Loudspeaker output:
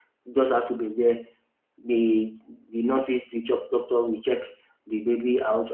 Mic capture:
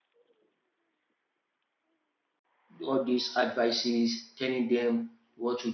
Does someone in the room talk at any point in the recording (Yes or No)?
Yes